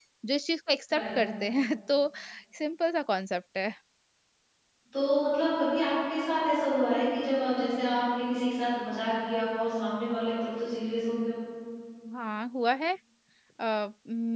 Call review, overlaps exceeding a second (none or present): none